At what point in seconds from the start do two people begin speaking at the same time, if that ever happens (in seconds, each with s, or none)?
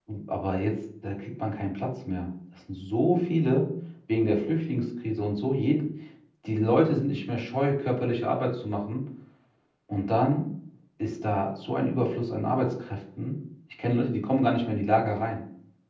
none